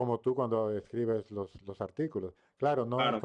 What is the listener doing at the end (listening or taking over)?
listening